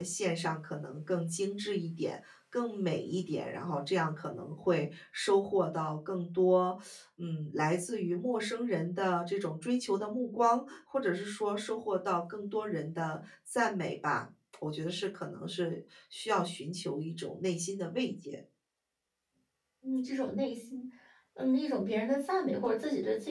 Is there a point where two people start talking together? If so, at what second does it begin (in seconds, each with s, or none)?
none